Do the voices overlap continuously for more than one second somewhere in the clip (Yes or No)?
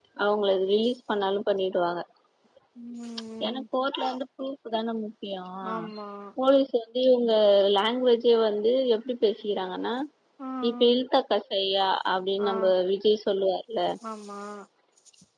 No